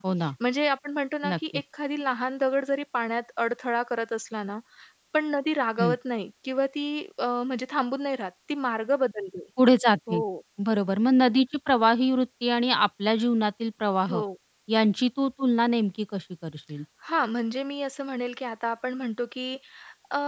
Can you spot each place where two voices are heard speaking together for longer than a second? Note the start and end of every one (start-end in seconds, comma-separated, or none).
none